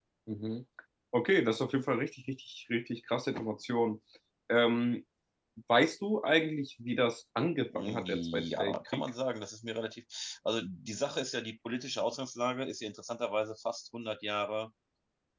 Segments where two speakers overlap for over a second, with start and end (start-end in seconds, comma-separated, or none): 7.8-9.1